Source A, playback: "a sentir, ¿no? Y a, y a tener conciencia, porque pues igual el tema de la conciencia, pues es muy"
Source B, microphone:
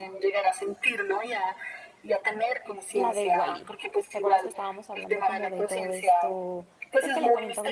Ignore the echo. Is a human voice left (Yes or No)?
Yes